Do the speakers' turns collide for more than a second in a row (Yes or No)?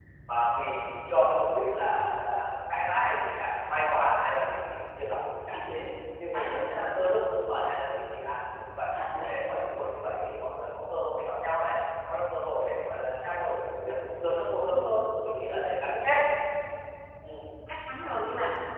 No